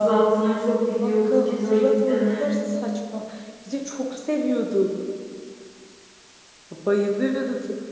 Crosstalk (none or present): present